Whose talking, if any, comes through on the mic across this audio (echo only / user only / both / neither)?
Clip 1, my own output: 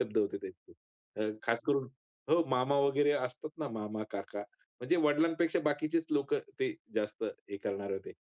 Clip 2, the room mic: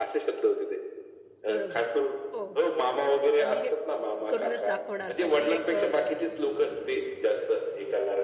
both